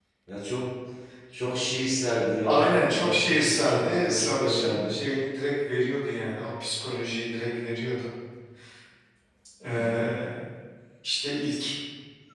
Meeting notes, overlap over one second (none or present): present